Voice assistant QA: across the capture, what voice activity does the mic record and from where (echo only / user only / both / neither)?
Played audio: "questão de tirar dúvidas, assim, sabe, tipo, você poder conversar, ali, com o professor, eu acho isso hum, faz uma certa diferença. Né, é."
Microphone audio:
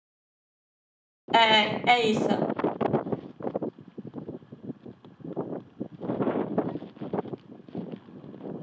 user only